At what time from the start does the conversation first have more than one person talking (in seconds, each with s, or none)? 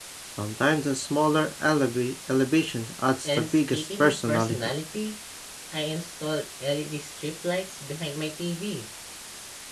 3.2 s